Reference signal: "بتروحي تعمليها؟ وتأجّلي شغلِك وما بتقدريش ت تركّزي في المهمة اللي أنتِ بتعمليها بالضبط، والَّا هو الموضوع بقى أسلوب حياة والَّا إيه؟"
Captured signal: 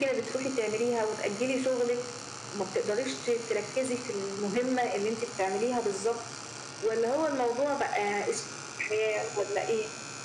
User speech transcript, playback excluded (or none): none